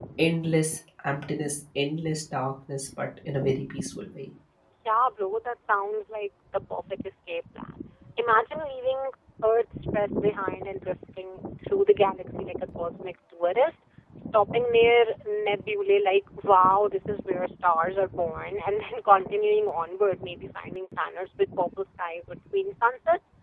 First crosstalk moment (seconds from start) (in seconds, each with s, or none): none